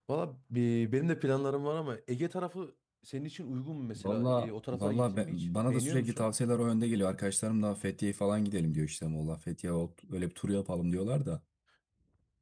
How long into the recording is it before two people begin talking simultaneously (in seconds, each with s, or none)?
4.0 s